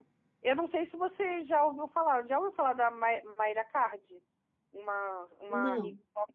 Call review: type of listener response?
listening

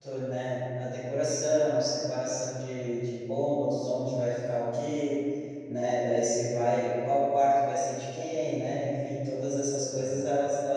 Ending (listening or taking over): listening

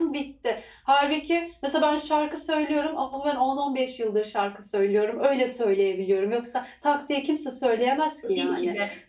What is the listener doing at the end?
taking over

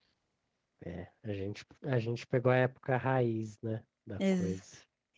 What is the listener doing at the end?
taking over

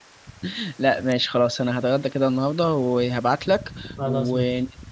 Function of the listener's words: listening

